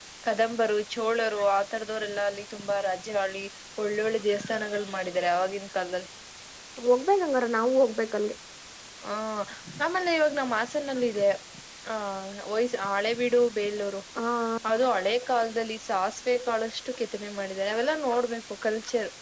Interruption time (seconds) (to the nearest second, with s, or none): none